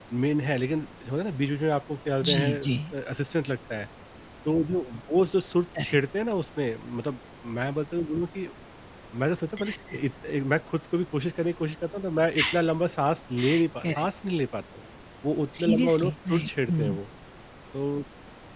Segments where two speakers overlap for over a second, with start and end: 15.6-17.0

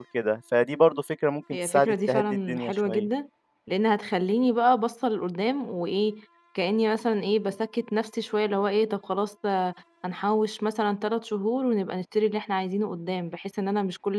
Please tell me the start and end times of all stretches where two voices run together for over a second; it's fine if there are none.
1.6-3.1

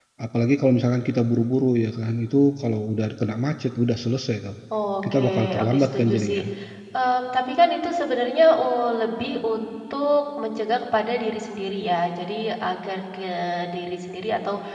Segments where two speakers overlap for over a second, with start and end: 5.1-6.4

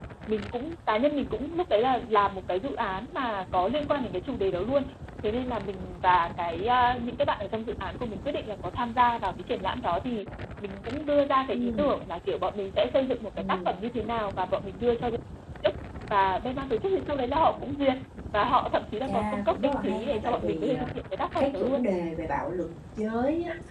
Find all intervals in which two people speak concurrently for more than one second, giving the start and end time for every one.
19.1-20.8

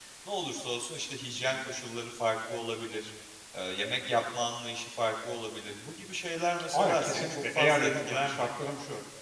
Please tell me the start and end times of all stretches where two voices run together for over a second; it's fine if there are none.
6.7-8.4

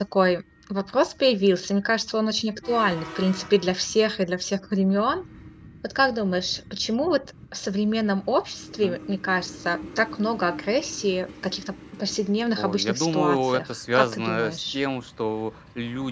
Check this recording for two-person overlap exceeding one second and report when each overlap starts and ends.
12.6-14.8

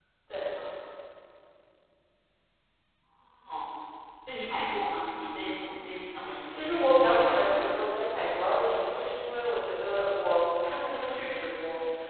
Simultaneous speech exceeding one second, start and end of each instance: 6.5-8.0

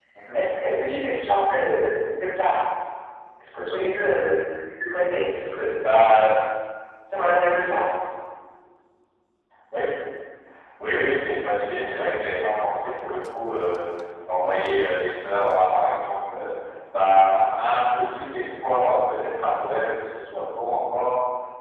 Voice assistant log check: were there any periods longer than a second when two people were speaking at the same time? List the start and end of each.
none

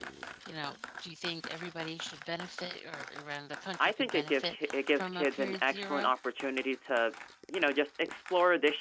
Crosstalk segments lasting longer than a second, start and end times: 3.8-6.1

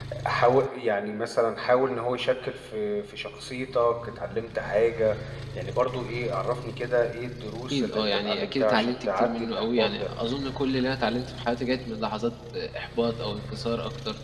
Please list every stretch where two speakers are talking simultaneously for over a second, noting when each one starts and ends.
7.7-10.0

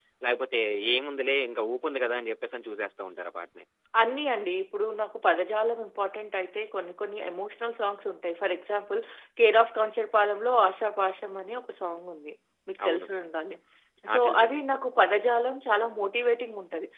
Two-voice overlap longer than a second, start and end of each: none

